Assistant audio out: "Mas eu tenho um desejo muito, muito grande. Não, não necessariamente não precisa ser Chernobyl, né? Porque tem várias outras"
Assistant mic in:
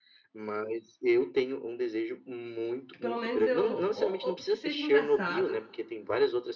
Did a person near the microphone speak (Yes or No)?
Yes